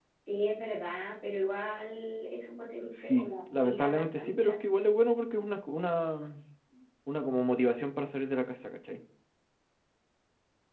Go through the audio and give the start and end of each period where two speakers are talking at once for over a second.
3.2-4.5

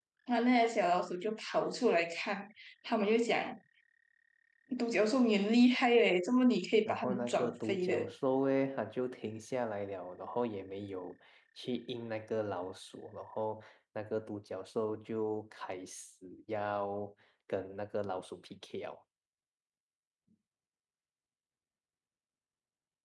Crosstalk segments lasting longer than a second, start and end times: 6.8-8.1

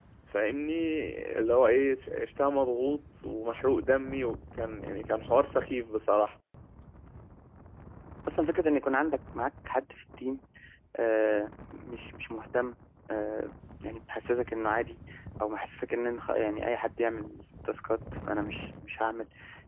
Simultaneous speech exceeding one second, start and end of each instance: none

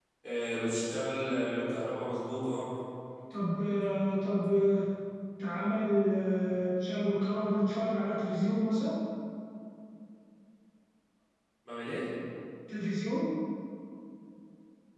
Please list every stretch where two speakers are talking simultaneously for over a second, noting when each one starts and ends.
none

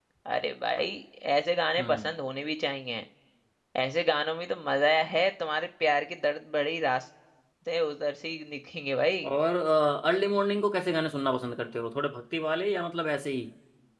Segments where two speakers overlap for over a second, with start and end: none

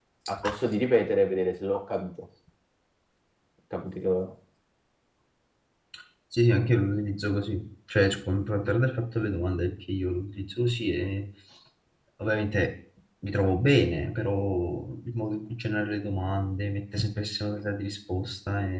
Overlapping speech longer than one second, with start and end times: none

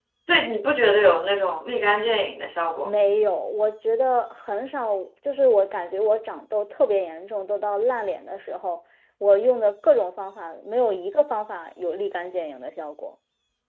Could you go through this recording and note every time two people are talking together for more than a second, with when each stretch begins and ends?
none

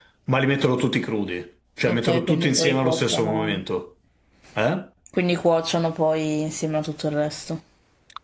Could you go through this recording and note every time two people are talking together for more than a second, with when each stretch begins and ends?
1.9-3.6

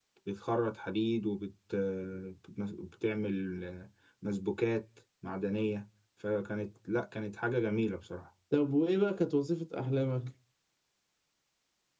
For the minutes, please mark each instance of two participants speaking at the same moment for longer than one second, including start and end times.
none

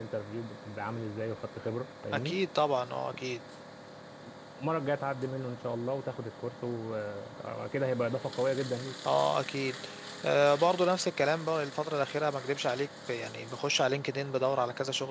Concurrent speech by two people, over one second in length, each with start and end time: none

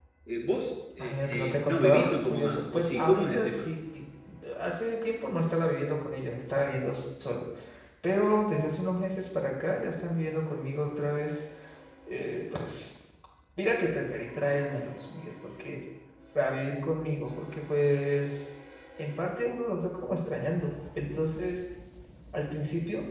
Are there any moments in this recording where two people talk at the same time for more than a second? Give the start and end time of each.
1.0-3.7

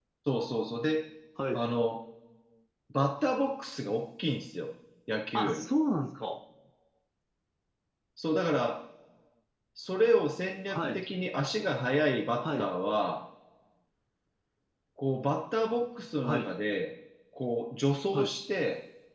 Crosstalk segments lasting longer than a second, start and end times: none

